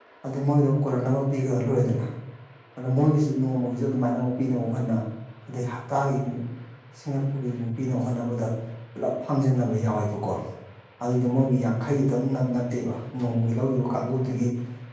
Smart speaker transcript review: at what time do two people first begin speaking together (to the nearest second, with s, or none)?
none